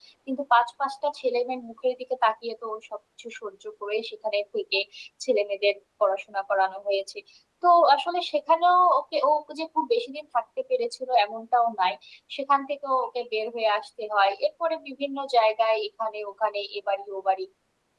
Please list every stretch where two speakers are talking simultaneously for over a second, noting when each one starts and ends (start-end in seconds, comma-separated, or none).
none